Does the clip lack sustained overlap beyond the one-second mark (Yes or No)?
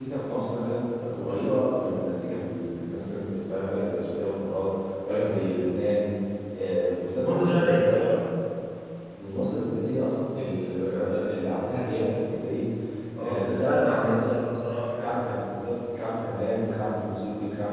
No